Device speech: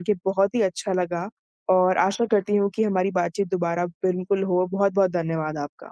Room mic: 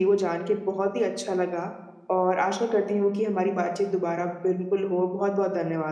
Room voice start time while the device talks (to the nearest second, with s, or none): none